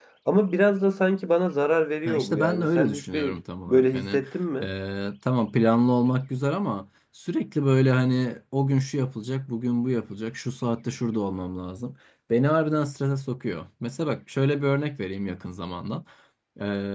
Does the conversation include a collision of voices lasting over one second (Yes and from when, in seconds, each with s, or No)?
Yes, from 2.0 s